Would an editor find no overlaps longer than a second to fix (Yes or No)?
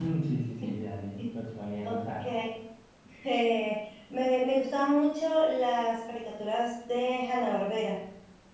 Yes